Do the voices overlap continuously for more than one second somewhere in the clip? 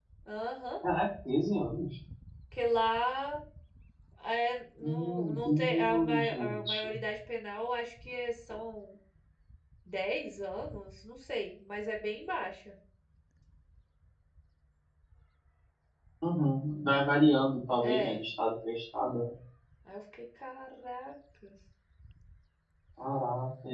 Yes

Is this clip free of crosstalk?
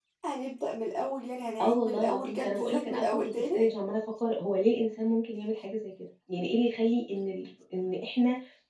No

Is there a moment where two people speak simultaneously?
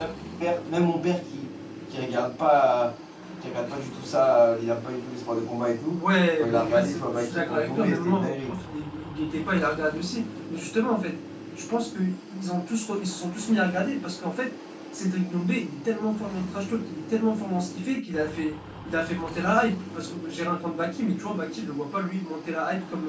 Yes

